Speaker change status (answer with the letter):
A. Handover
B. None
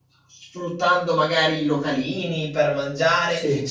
B